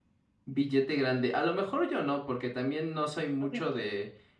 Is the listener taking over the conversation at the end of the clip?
No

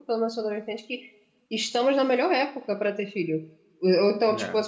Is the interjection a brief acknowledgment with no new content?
Yes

